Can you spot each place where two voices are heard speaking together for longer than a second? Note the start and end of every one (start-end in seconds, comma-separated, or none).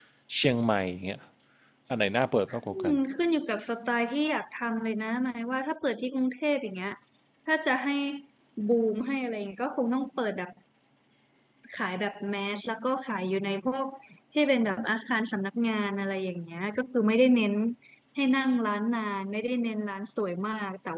none